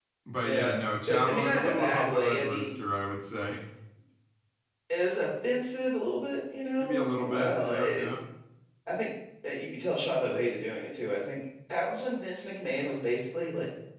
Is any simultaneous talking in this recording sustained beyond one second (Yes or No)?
Yes